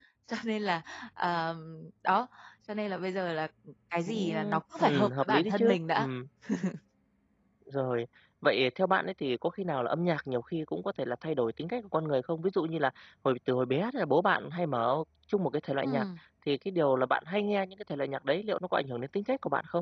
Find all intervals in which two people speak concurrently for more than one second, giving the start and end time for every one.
4.8-6.1

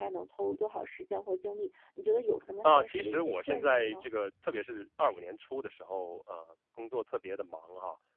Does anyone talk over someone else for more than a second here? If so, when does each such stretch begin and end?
2.6-4.1

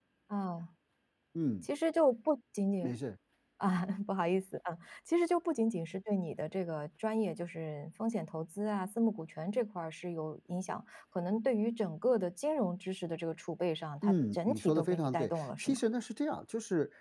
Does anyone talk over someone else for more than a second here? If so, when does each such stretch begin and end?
14.0-15.8

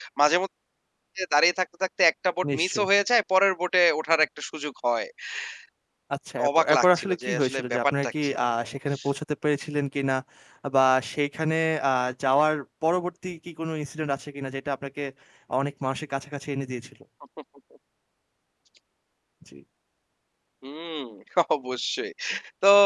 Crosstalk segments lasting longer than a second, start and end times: 6.5-8.3

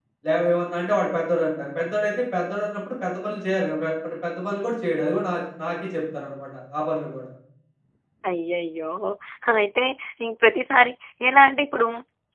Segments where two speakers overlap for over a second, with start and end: none

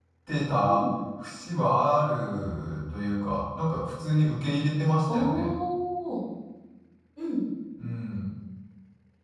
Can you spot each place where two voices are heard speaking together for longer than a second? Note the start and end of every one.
none

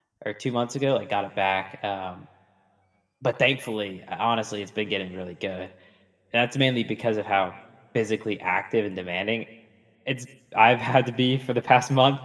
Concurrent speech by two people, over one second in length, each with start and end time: none

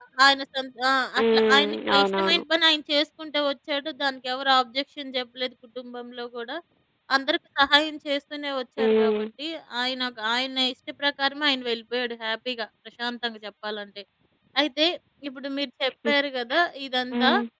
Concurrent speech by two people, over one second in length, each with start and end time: 1.2-2.4

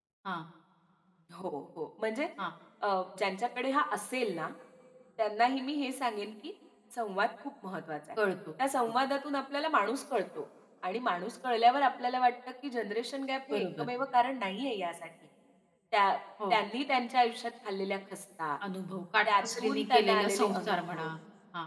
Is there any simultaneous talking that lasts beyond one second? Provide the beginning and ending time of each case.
19.2-21.1

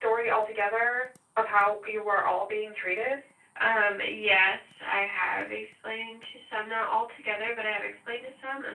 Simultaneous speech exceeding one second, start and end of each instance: none

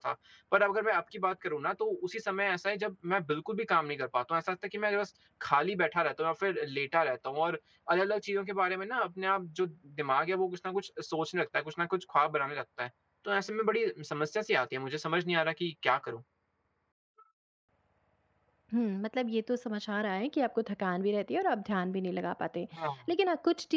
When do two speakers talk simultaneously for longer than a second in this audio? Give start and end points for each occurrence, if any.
none

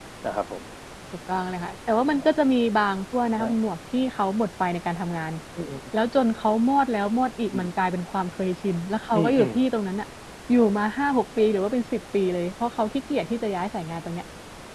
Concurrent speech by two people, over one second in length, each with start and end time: none

